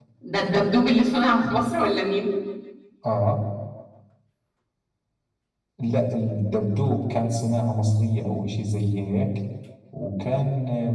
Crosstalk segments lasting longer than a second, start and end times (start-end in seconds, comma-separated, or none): none